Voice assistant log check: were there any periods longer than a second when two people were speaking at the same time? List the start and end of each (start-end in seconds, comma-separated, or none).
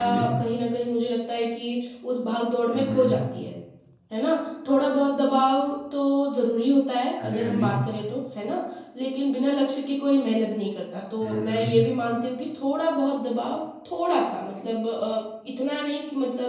none